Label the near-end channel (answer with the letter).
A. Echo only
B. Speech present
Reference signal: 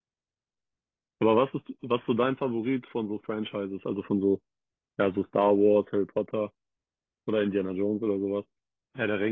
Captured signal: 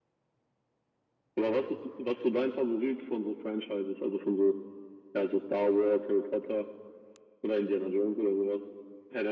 A